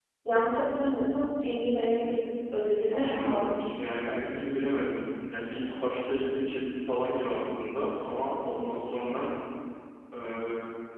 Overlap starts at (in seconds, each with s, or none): 2.9 s